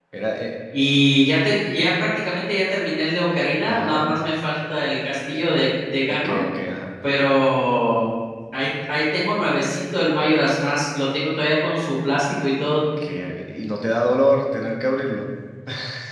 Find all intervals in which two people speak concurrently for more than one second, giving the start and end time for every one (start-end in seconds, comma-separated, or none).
none